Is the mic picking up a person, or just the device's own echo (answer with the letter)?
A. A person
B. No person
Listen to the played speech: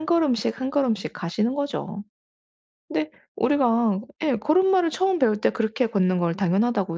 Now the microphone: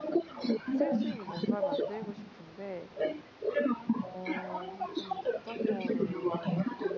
A